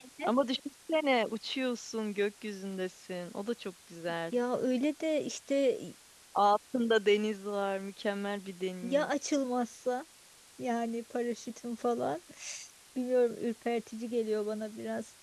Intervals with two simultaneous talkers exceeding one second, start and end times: none

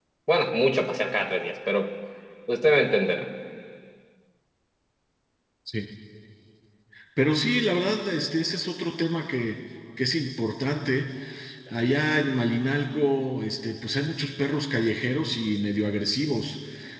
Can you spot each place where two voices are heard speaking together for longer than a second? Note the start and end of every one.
none

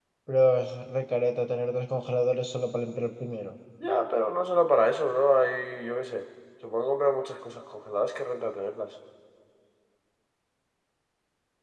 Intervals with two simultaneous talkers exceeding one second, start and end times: none

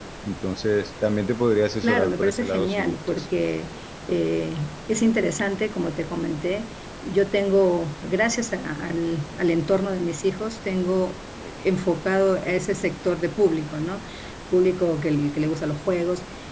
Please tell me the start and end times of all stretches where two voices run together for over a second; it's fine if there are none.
1.8-3.2

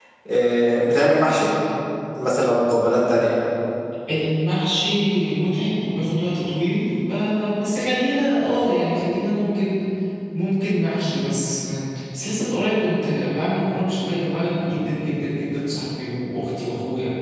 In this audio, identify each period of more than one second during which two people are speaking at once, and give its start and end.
none

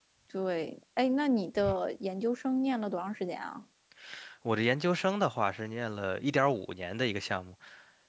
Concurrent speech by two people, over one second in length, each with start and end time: none

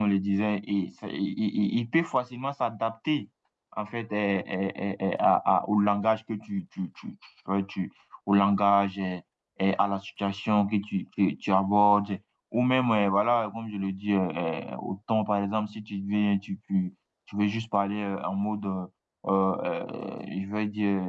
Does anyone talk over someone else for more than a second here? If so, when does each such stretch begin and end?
none

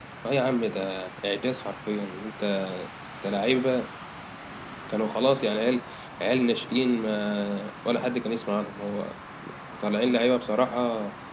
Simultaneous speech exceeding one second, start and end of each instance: none

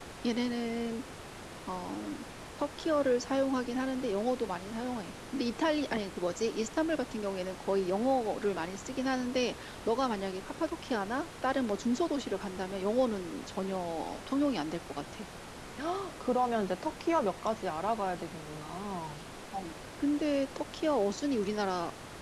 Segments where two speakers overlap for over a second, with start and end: none

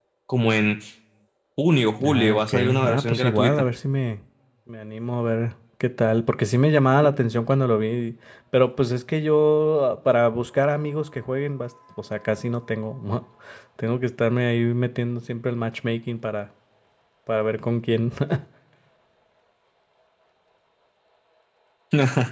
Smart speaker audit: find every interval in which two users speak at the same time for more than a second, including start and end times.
2.0-3.5

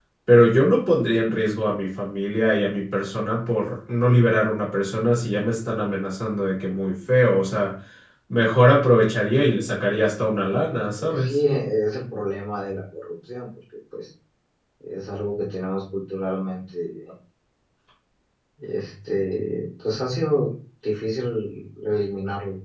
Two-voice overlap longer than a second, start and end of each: none

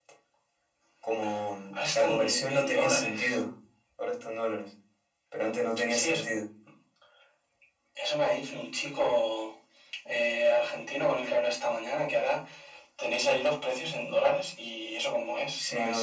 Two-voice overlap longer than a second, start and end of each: 1.9-3.2

